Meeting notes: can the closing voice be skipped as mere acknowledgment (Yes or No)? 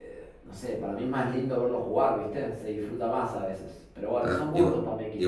No